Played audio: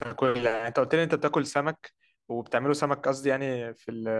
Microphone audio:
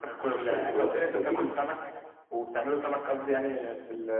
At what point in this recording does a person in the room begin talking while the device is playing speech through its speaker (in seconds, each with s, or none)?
0.5 s